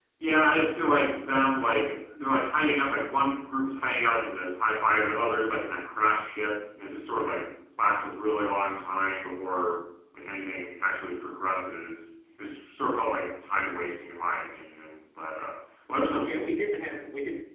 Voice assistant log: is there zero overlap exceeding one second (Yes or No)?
Yes